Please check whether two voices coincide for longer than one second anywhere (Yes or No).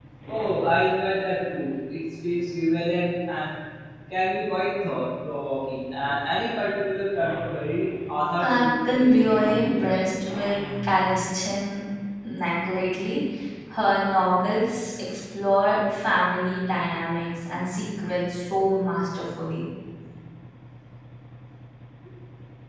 Yes